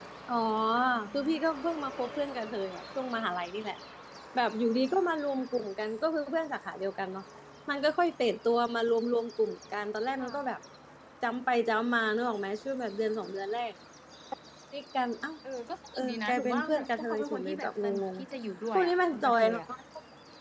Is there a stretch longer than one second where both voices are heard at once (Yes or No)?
Yes